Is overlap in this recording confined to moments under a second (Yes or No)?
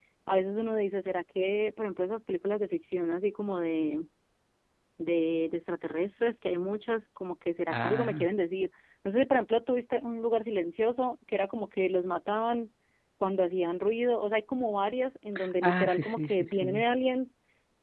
No